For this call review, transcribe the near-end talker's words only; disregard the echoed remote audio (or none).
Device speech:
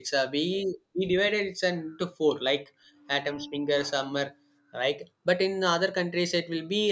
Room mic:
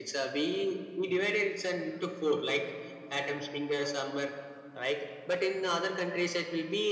none